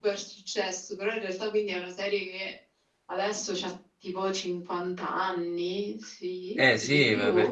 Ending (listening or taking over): taking over